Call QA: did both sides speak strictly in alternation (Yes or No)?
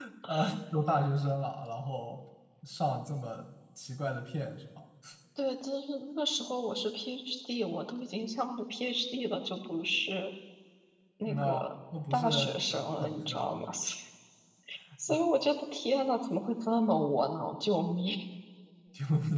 No